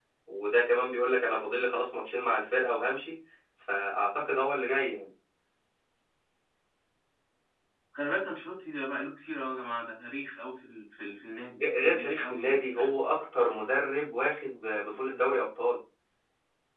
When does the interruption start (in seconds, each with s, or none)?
11.6 s